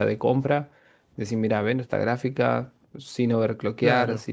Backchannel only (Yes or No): Yes